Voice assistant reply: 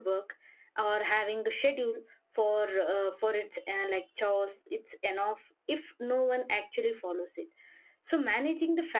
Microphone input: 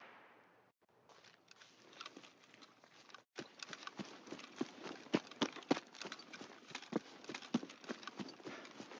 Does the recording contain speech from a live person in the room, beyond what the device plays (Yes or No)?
No